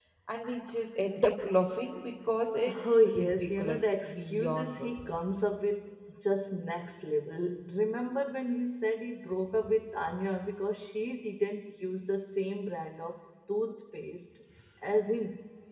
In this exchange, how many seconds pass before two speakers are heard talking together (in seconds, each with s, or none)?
2.7 s